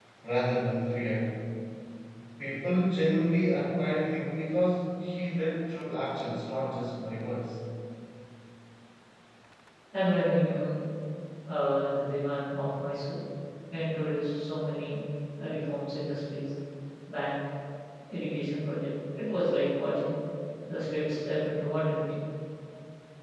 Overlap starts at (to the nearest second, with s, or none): none